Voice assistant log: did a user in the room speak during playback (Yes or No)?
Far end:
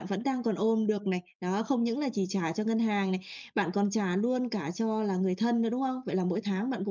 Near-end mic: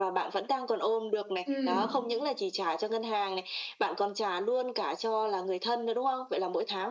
Yes